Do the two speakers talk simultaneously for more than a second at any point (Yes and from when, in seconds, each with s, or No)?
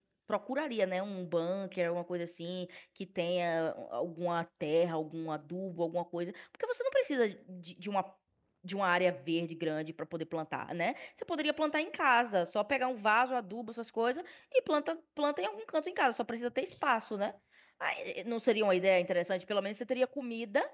No